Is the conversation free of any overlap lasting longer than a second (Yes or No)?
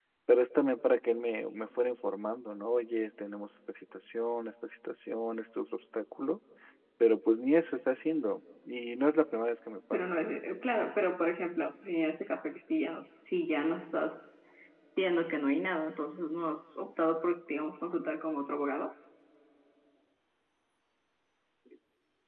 Yes